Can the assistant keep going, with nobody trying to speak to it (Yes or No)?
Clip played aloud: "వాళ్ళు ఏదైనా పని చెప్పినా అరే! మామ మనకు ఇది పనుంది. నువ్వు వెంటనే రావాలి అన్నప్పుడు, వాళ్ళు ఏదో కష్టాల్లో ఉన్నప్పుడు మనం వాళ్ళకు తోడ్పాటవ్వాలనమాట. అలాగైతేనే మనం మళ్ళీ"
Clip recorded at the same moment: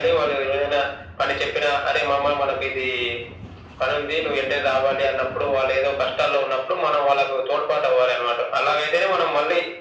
Yes